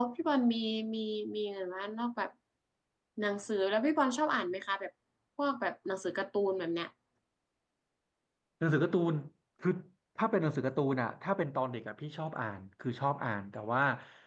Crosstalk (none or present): none